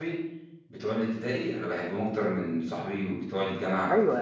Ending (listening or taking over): taking over